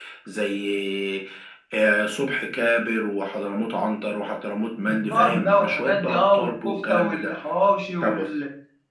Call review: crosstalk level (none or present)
present